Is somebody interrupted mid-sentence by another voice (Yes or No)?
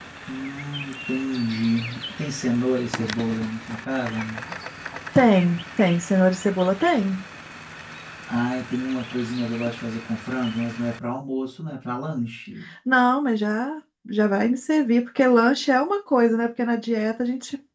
No